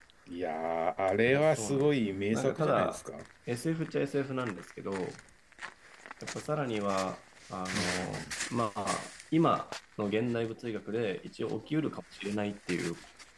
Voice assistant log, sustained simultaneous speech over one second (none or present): present